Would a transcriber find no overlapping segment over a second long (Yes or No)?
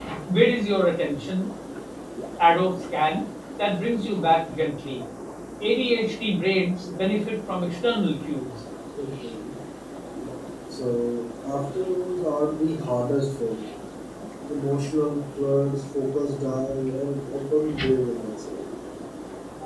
Yes